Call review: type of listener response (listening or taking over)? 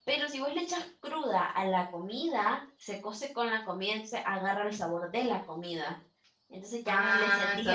taking over